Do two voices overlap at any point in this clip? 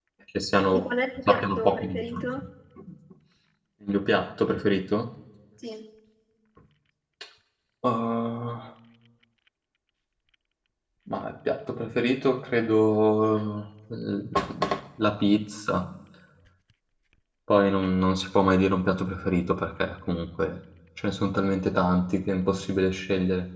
Yes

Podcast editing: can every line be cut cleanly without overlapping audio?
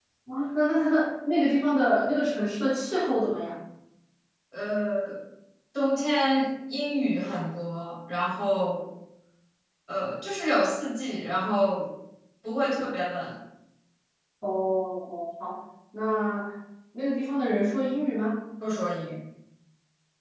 Yes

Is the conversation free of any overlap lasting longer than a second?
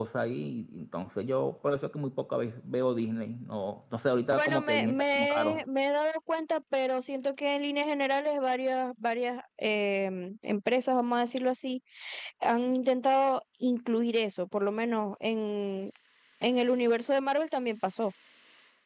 No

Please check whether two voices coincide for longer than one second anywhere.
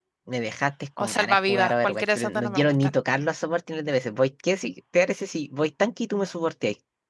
Yes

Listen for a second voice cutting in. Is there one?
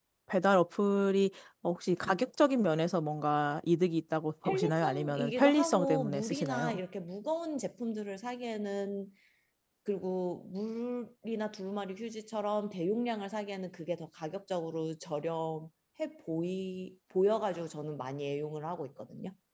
Yes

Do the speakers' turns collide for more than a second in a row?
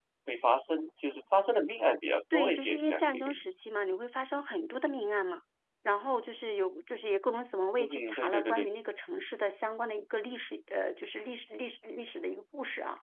Yes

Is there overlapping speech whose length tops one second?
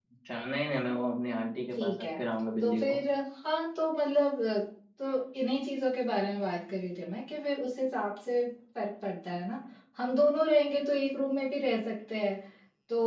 No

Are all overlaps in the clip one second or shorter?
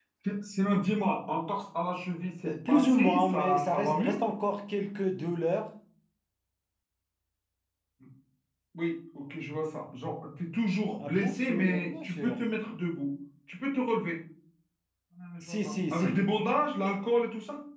No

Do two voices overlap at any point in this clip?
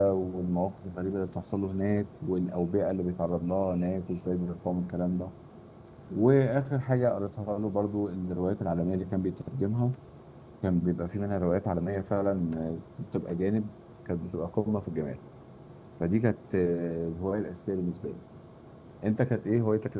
No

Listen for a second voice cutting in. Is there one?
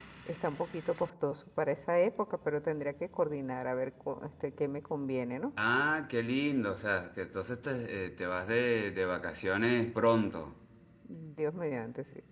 No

